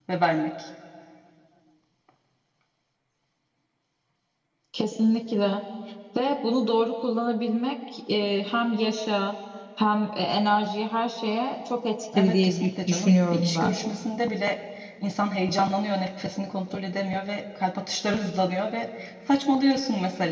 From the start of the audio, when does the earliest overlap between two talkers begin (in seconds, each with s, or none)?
12.1 s